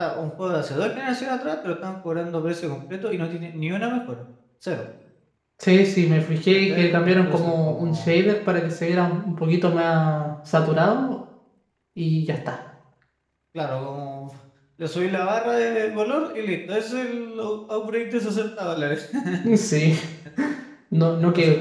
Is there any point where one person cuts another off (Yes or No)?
Yes